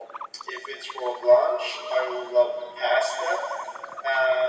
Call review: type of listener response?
listening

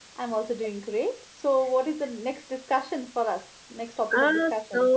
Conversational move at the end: taking over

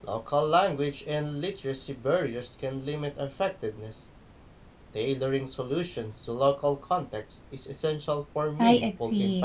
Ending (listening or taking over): taking over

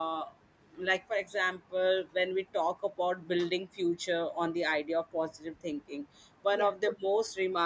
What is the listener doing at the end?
listening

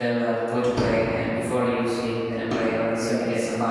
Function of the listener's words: listening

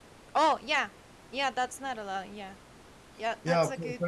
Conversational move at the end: taking over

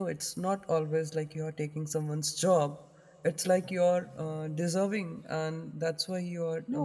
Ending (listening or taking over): taking over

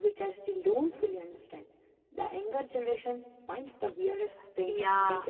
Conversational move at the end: taking over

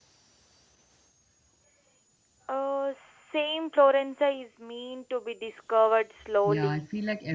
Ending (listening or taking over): taking over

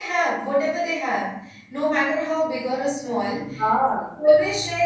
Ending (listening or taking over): listening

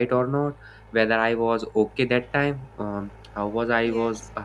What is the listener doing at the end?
listening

